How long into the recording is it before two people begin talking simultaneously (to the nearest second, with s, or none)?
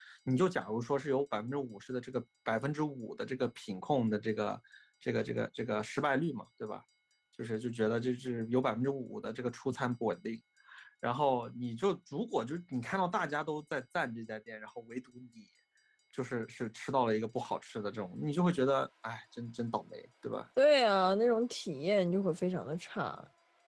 none